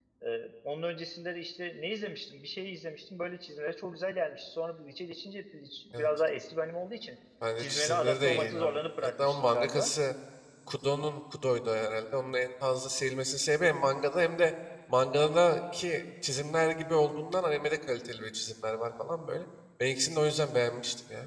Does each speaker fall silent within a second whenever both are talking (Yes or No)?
No